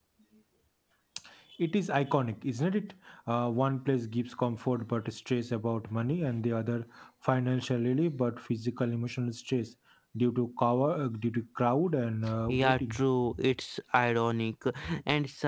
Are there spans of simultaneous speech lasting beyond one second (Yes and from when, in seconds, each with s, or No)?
No